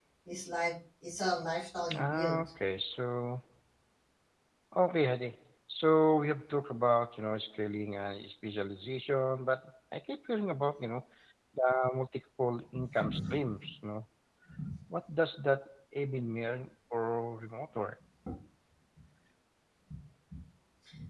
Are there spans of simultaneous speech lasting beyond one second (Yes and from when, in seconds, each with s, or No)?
No